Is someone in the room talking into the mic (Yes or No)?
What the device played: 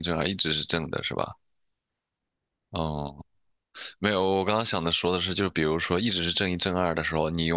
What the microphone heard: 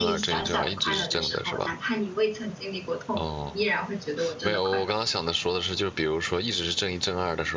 Yes